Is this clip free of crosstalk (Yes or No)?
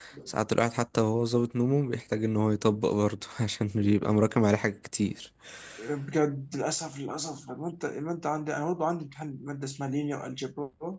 Yes